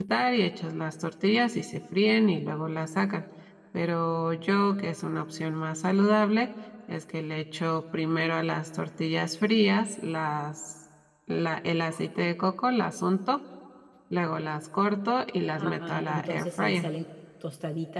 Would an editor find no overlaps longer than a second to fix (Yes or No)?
No